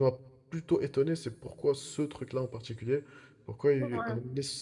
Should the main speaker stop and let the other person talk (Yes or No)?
No